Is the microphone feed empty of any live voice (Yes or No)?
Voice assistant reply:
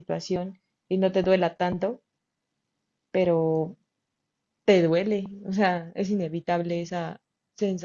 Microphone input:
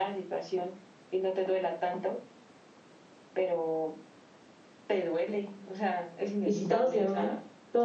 No